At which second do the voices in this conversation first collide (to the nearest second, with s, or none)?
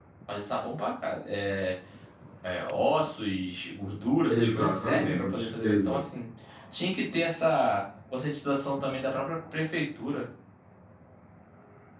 4 s